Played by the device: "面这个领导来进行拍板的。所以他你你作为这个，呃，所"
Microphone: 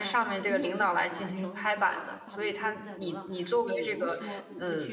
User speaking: Yes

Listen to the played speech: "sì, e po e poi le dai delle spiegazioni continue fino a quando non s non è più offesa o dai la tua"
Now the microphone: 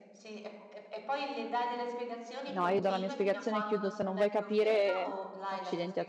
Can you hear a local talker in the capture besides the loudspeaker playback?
Yes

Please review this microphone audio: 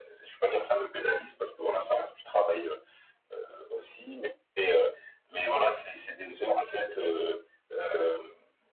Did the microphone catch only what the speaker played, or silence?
Yes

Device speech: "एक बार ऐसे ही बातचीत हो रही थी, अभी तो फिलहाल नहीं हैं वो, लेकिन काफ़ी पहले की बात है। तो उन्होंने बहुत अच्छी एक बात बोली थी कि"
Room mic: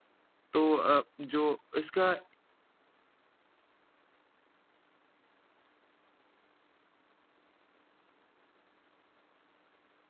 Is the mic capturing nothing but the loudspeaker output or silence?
No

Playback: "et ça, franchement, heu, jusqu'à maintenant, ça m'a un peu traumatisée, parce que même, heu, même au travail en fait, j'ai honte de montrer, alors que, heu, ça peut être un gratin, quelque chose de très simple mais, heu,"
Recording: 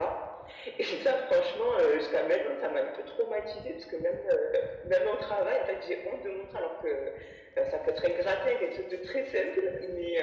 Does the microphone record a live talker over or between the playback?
No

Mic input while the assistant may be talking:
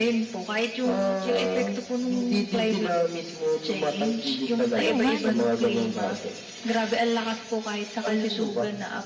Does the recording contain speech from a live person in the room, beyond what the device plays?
Yes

